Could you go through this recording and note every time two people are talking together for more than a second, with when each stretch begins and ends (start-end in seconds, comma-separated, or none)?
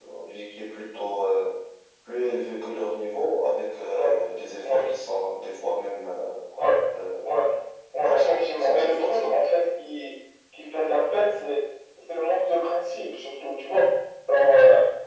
8.0-9.4